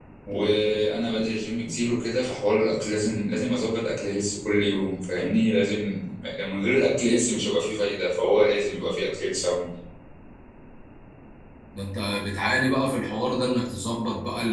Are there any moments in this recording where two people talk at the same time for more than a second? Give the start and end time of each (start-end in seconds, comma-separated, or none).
none